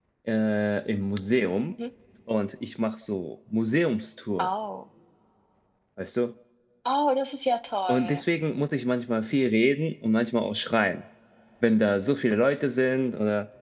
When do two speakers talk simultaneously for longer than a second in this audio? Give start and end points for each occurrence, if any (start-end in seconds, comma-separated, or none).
none